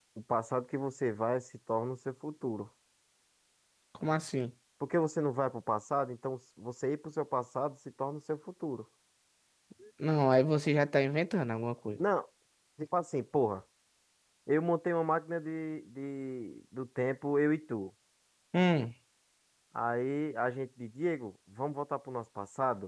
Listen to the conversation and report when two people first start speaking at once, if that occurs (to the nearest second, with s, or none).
none